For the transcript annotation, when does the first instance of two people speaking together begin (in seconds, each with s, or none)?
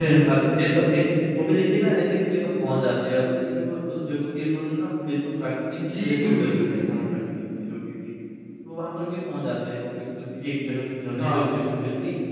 5.8 s